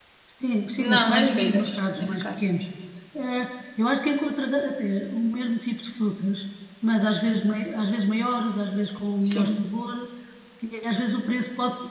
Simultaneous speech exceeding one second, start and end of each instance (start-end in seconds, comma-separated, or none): 0.8-2.5